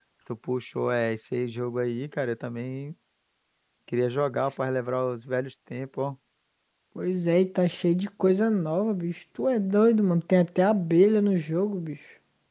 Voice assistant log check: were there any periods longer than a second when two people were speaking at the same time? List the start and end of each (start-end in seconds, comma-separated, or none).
none